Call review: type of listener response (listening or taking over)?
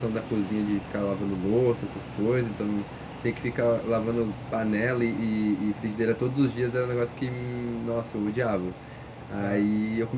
listening